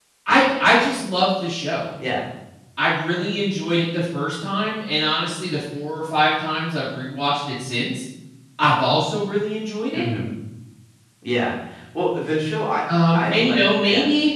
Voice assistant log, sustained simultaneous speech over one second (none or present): present